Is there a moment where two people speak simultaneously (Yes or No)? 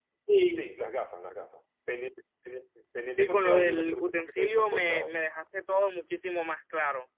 Yes